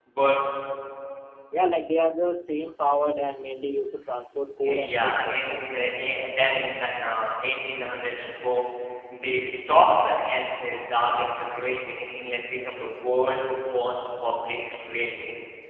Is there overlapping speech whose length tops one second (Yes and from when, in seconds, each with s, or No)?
Yes, from 4.6 s